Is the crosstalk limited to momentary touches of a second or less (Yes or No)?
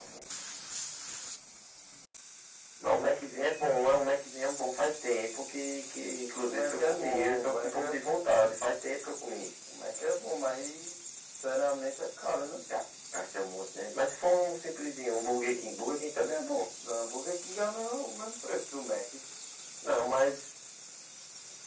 No